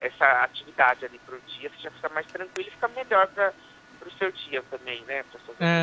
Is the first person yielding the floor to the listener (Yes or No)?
Yes